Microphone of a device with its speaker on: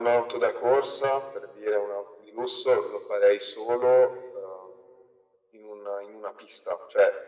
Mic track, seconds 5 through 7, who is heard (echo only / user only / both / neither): echo only